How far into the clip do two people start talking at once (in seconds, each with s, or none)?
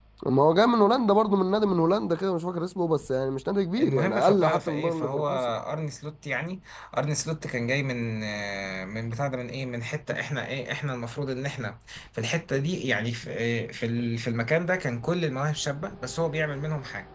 3.8 s